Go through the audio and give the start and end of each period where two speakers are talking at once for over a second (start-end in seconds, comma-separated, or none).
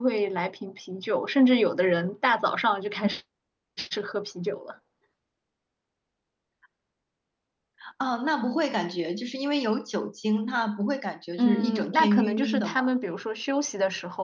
11.4-12.8